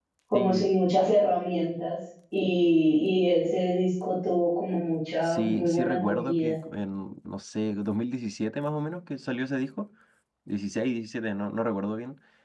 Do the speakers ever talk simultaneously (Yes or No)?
Yes